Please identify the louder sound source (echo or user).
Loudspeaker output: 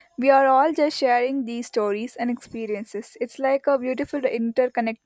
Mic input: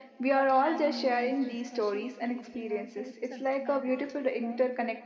echo